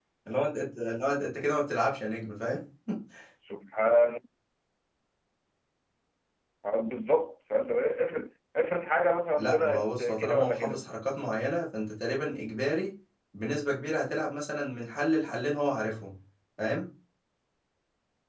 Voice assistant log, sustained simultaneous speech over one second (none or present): present